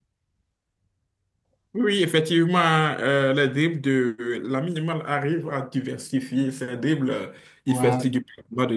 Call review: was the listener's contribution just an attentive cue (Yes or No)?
Yes